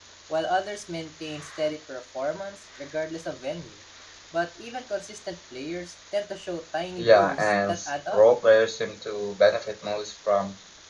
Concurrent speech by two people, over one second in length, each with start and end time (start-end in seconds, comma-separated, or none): 7.0-8.2